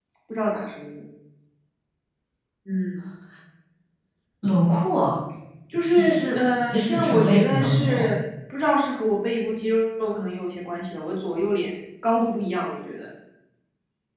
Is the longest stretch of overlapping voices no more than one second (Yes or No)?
No